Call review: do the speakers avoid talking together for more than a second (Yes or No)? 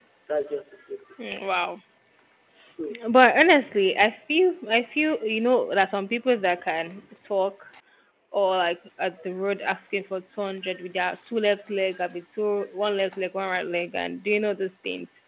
Yes